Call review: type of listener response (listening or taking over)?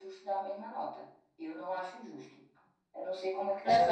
taking over